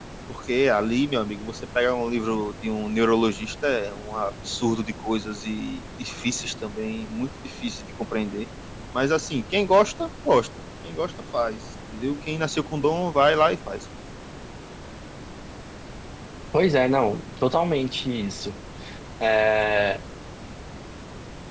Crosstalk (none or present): none